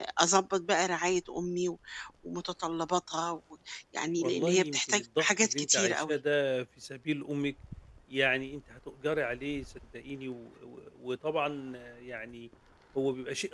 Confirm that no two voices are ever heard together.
No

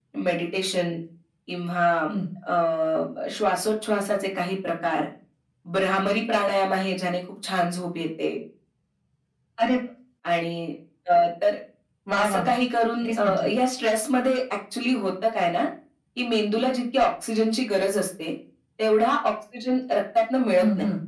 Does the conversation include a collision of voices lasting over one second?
No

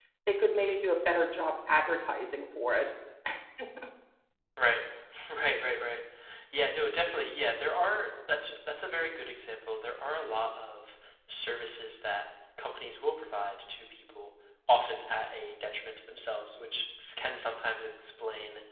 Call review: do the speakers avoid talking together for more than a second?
Yes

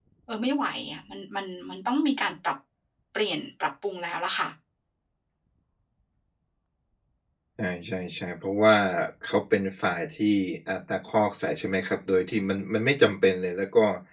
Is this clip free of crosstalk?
Yes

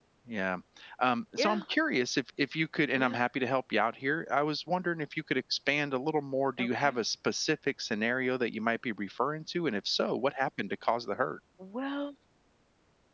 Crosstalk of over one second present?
No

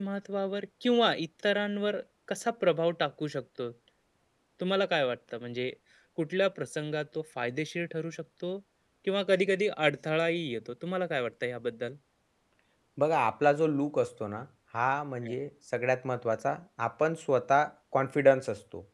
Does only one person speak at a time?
Yes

